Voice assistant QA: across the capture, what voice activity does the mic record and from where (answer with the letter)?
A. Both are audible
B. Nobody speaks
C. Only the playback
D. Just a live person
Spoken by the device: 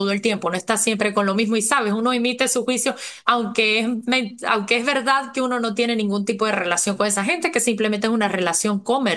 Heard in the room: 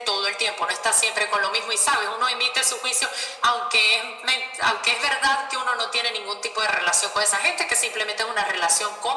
C